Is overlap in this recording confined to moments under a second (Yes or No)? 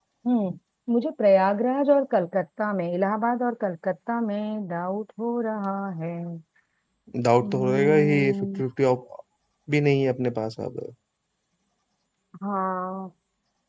No